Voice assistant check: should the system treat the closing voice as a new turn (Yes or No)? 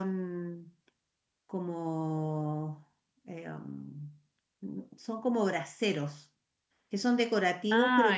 No